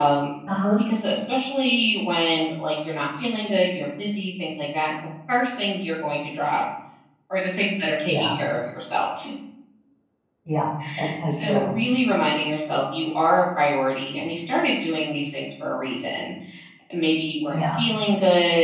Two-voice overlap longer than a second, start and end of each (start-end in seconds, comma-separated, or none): none